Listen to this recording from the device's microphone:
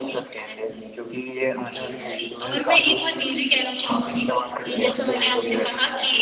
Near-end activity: none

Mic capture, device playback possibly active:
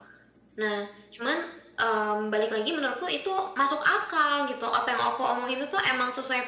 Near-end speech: none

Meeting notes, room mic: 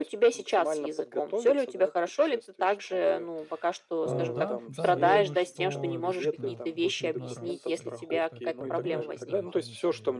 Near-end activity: present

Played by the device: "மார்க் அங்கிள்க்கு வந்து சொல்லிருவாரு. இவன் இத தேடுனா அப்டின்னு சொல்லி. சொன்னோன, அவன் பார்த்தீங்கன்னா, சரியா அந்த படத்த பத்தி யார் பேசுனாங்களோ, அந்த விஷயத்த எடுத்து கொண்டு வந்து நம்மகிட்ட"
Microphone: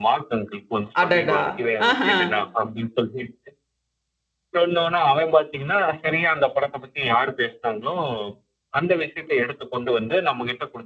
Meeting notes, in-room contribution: present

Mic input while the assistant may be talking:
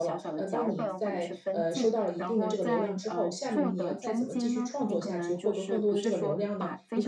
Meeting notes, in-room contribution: present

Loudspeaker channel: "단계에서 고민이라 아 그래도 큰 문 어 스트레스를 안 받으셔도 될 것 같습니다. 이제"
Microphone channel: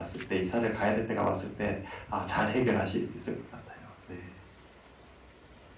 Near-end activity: present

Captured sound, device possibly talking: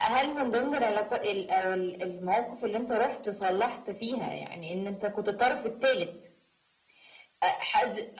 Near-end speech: none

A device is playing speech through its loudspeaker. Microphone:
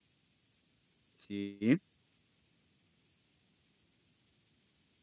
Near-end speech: present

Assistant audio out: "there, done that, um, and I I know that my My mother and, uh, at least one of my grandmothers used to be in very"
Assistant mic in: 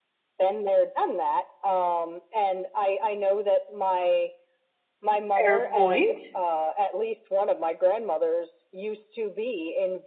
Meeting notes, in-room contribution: present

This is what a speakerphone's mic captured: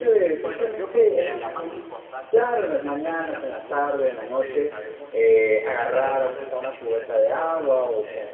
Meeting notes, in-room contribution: present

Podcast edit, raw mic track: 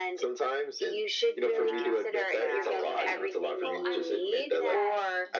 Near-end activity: present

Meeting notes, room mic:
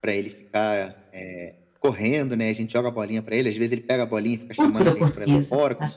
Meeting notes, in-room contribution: present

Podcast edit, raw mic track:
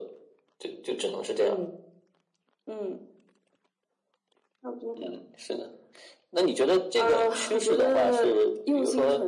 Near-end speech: none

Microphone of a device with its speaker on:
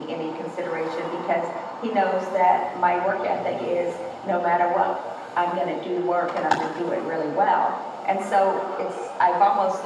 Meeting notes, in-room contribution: none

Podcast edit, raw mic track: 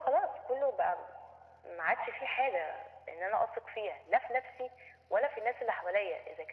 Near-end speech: none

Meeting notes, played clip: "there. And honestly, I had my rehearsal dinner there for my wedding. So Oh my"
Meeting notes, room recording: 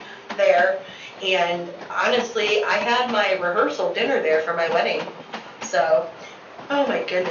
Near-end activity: none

